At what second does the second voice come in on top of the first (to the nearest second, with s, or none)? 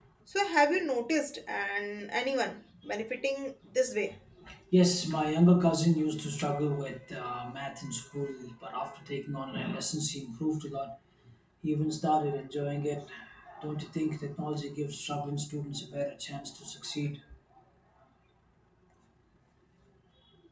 none